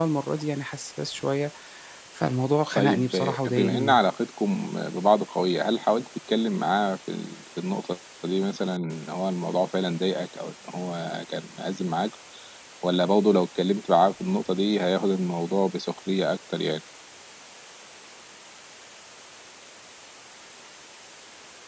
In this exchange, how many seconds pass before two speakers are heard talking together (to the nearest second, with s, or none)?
3 s